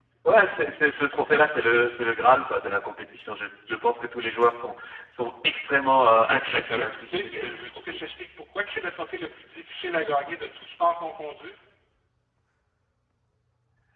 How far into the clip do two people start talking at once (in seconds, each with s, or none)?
6.3 s